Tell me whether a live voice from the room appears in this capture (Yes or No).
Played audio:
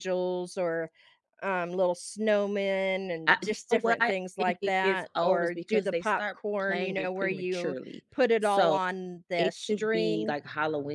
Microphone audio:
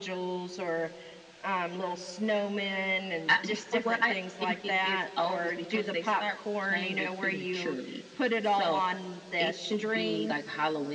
No